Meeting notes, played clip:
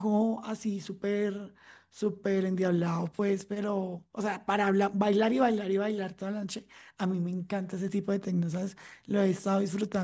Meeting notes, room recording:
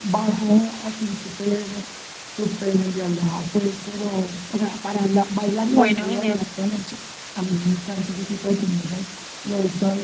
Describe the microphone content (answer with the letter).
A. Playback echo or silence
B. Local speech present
B